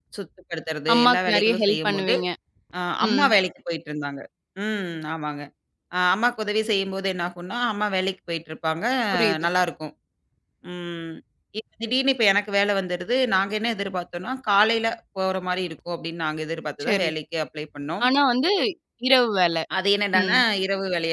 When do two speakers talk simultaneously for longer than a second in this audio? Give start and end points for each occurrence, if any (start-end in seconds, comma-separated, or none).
0.9-2.1